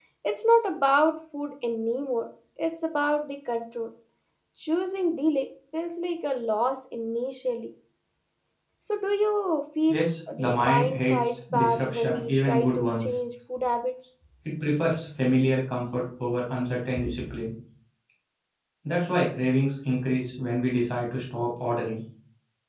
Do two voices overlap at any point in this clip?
Yes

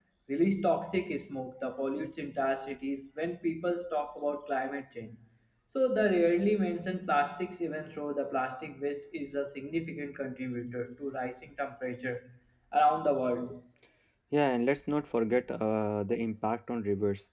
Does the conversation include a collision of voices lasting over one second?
No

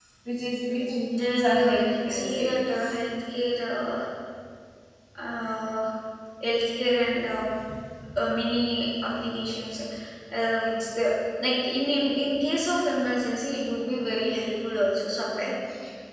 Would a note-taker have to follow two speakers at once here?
Yes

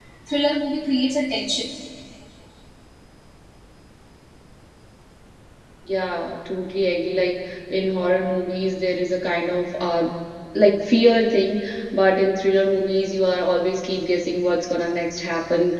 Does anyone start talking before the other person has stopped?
No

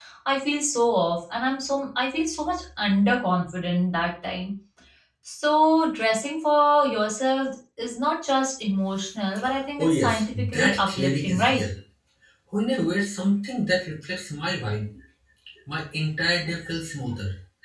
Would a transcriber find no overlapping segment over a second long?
No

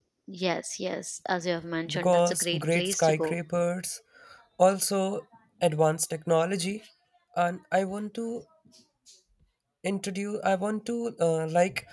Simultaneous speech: Yes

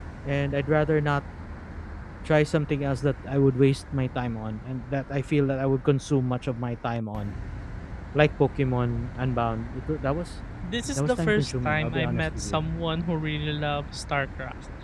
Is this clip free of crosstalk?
No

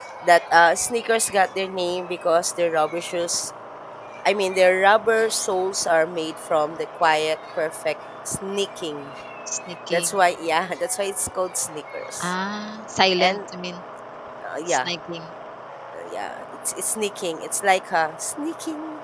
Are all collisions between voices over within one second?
Yes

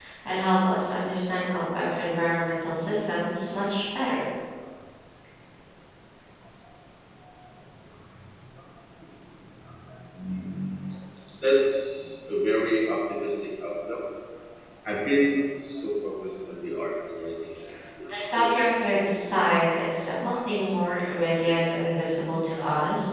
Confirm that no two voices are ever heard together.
No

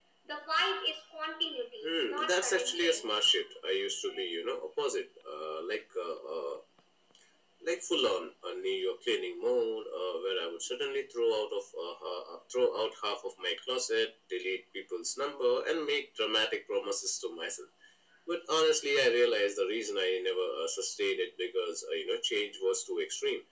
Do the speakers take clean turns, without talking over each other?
No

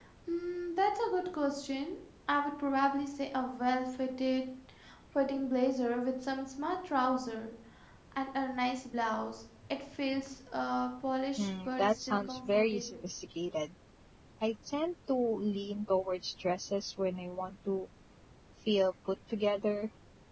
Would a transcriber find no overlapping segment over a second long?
No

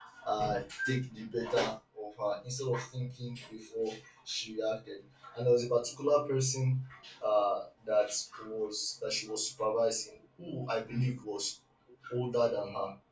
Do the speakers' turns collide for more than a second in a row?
No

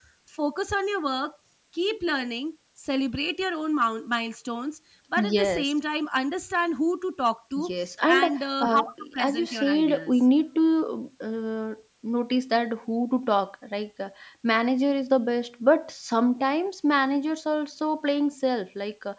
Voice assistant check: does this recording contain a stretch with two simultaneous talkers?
Yes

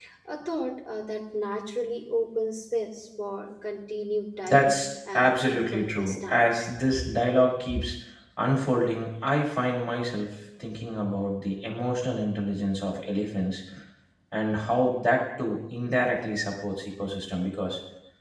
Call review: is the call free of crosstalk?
No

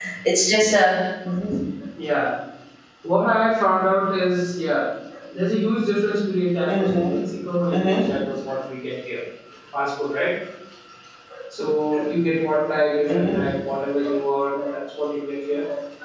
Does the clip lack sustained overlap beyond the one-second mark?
Yes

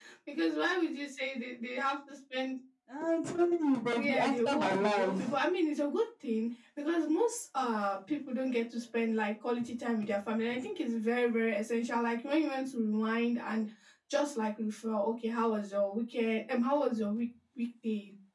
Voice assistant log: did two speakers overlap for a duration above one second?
Yes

